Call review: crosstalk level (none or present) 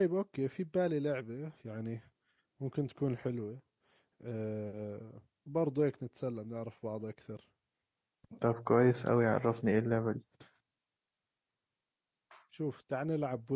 none